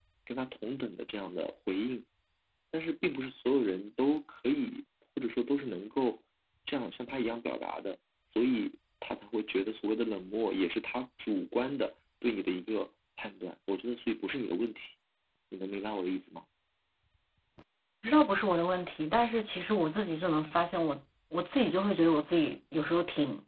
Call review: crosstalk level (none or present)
none